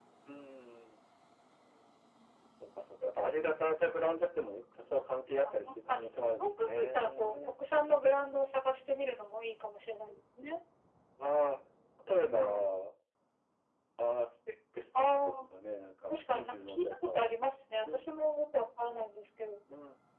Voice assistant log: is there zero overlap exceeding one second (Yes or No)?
No